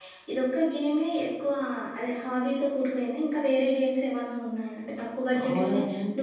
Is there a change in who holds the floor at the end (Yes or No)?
No